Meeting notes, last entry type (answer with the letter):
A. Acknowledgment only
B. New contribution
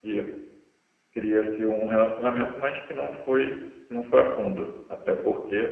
A